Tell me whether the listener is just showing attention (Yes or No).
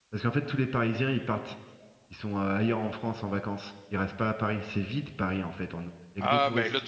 No